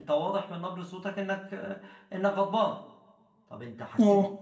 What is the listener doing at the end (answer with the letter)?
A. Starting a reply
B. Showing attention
B